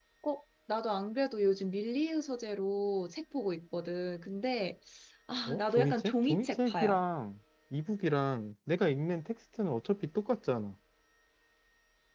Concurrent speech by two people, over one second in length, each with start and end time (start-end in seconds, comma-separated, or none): 5.5-7.0